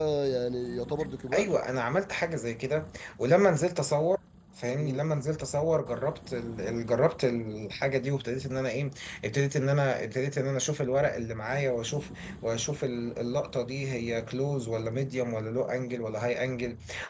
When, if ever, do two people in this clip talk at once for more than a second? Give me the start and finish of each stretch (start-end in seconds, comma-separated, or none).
none